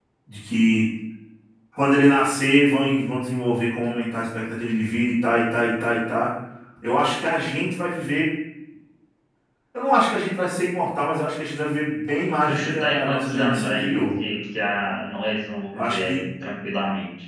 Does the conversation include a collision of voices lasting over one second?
Yes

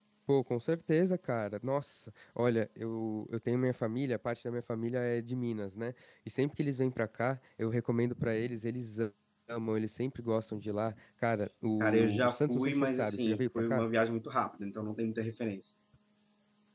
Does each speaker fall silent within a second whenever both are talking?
No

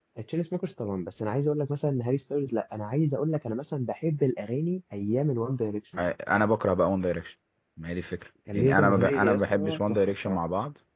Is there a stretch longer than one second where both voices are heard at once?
Yes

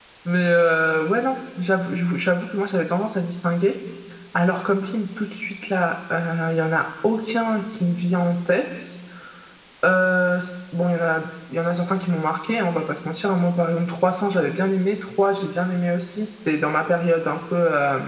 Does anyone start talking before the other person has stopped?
No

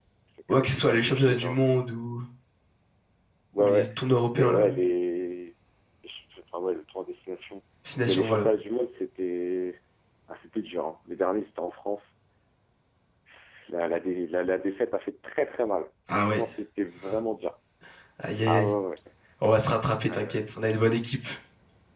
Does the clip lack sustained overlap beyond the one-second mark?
No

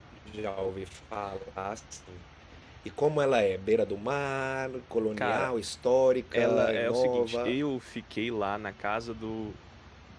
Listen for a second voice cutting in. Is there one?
Yes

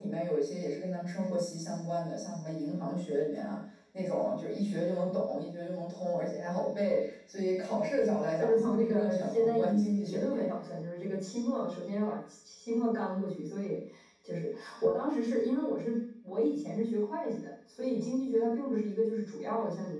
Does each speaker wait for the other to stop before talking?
No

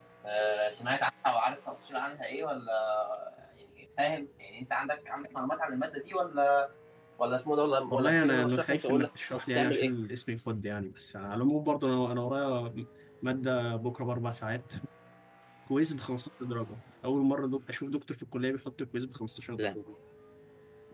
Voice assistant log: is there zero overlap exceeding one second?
No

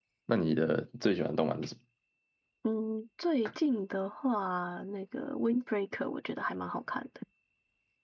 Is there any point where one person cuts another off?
No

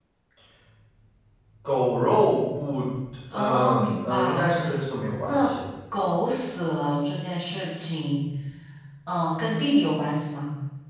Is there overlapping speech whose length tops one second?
Yes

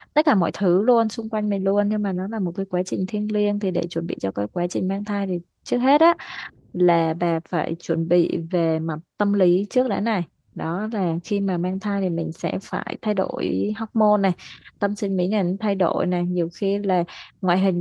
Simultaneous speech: No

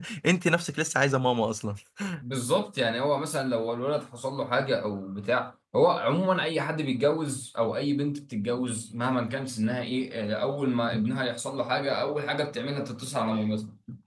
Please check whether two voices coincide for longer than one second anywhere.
No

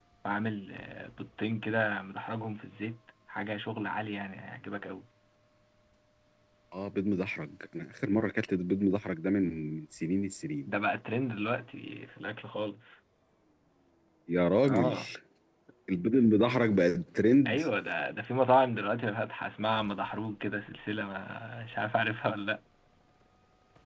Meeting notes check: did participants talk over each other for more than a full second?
No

